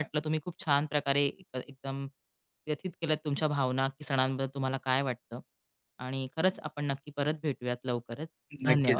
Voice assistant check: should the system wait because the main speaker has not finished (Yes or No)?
No